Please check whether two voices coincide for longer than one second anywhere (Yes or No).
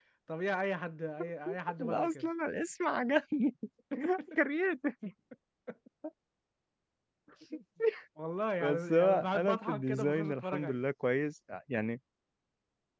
Yes